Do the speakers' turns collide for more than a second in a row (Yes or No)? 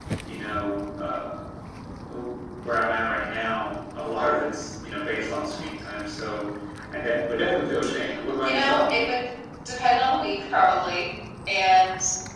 No